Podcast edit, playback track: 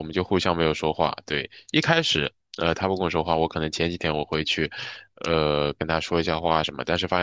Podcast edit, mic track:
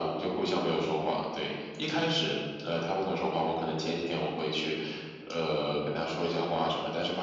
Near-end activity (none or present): none